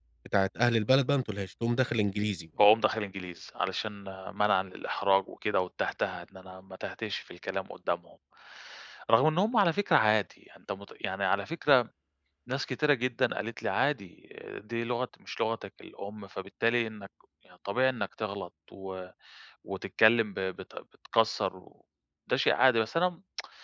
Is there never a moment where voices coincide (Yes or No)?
Yes